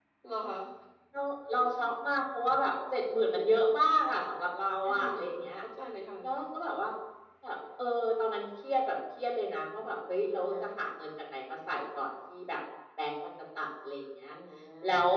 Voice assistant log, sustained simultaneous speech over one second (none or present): none